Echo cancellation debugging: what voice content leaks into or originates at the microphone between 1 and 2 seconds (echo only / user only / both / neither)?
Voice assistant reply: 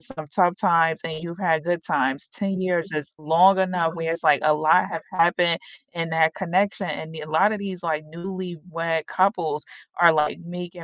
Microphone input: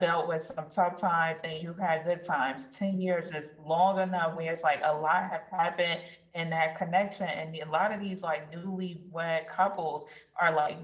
echo only